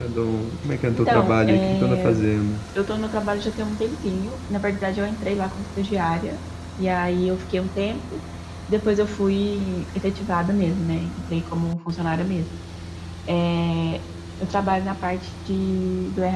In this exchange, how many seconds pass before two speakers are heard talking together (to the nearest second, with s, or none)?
1 s